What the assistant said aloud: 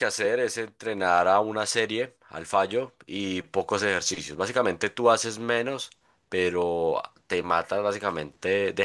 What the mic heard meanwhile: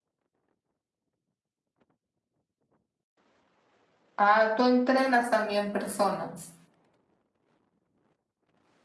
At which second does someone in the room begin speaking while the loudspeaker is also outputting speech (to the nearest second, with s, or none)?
4 s